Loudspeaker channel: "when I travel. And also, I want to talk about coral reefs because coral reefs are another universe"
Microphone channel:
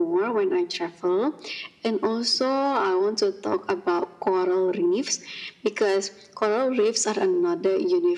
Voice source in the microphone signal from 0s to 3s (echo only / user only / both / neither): echo only